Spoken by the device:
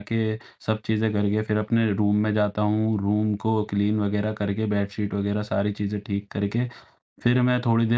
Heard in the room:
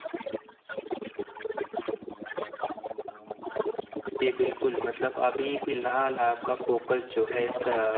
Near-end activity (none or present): present